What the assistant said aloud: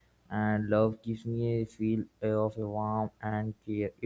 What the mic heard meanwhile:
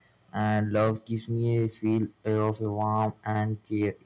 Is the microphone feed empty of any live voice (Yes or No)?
Yes